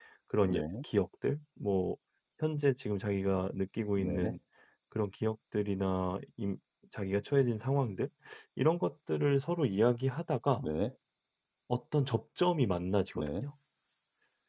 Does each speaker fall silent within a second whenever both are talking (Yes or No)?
Yes